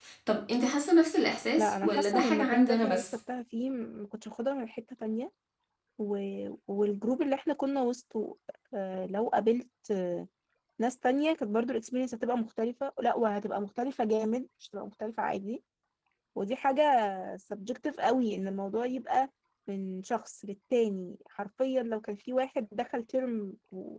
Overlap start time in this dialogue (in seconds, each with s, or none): 1.6 s